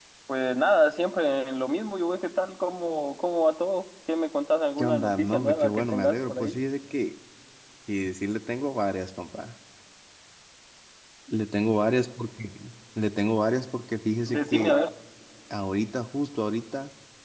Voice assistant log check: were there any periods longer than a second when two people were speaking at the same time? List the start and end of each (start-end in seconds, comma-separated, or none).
4.8-6.5